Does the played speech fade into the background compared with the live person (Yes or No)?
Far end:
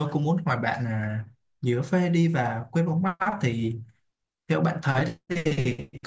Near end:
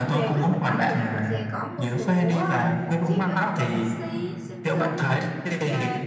No